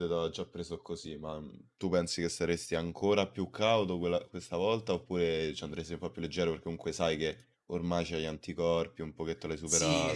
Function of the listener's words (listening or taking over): taking over